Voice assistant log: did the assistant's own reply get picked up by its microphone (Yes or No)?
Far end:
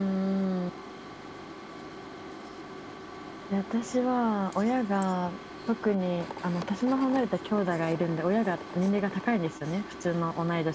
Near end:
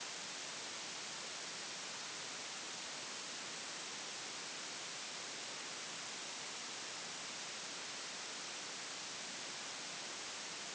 No